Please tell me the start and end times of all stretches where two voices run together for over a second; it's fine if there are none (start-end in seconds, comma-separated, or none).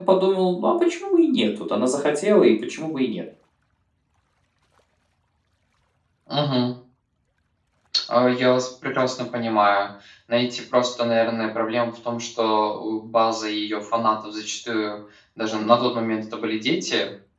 none